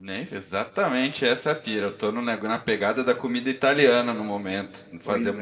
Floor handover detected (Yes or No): No